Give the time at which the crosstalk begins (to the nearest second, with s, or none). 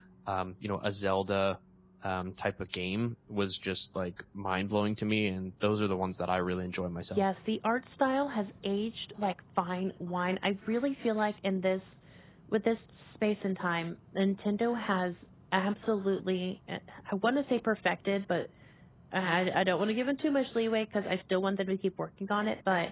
none